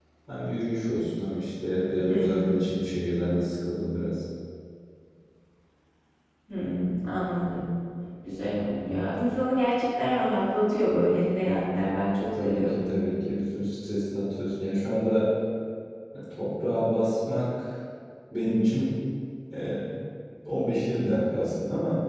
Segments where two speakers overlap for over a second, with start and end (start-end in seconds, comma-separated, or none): none